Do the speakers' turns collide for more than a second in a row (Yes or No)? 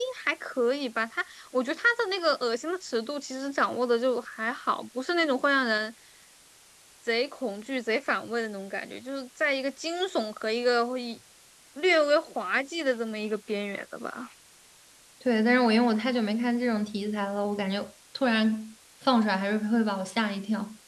No